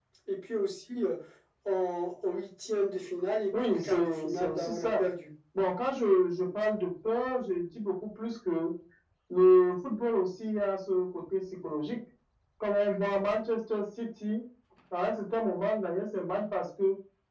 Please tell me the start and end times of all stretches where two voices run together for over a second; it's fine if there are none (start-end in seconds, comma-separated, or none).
3.6-5.0